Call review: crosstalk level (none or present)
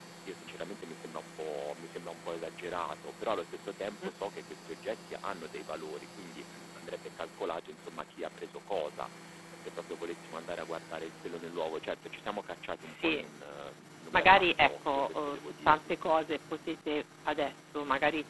present